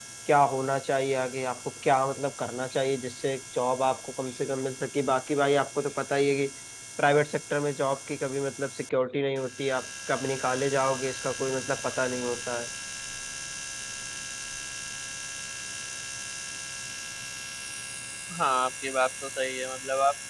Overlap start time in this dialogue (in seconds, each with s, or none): none